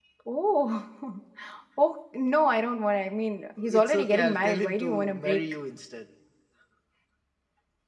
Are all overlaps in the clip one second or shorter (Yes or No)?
No